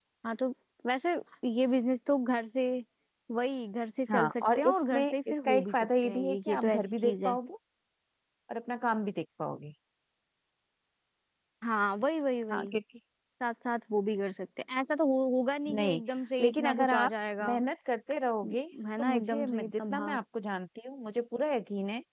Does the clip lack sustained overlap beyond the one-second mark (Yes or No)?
No